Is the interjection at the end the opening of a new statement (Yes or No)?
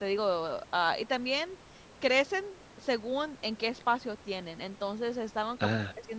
No